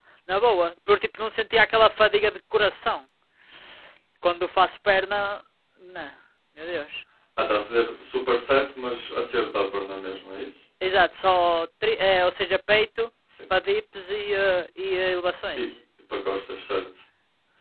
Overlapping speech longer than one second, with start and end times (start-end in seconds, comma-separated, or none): none